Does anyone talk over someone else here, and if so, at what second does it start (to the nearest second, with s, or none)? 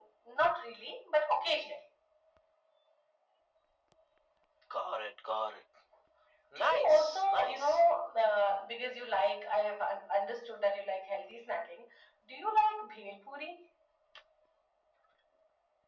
7 s